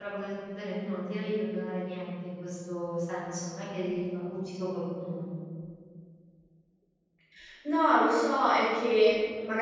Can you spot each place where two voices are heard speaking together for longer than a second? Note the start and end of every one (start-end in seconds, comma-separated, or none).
none